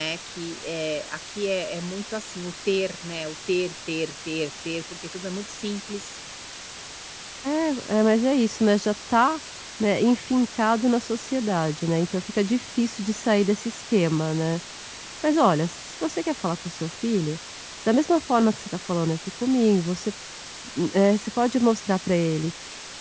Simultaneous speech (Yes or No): No